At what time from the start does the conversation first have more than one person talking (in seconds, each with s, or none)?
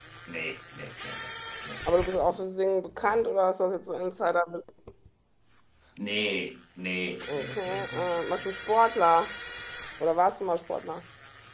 7.2 s